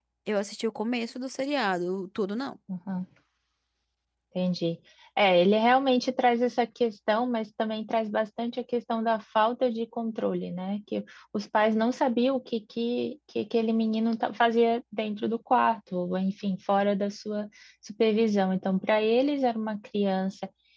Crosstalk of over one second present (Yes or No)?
No